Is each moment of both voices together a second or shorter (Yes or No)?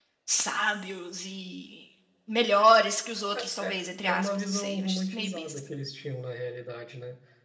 No